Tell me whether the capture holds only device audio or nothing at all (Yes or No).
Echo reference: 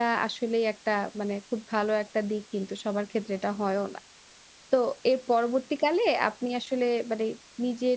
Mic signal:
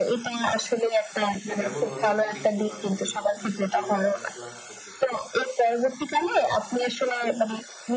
No